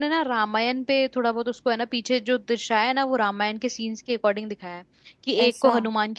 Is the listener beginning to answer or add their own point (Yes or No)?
No